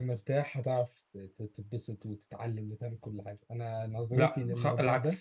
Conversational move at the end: taking over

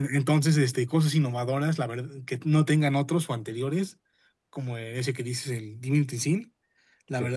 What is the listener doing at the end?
listening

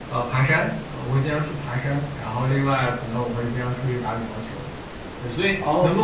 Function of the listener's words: listening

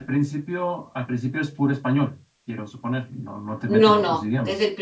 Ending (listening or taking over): taking over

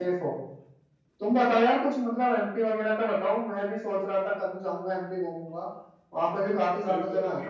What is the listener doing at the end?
taking over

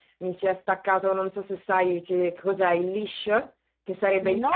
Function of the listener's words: listening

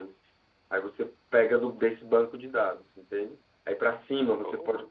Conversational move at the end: listening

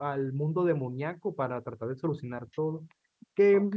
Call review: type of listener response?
listening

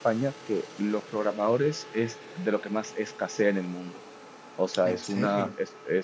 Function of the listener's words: listening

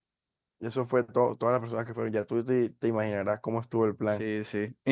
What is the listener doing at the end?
taking over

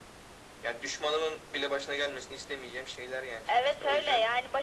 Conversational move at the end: taking over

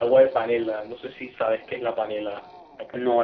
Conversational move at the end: taking over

